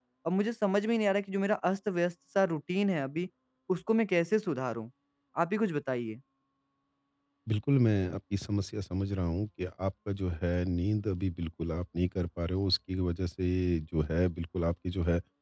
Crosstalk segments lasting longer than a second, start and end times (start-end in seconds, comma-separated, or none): none